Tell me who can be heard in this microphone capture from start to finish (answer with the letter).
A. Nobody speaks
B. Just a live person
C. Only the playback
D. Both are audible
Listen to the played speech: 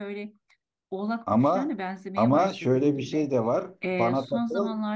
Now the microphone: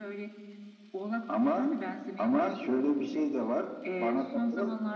C